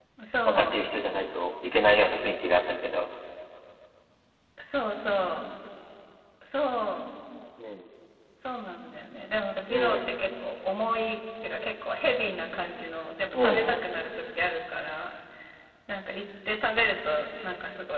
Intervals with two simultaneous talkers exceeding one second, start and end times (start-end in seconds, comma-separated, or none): none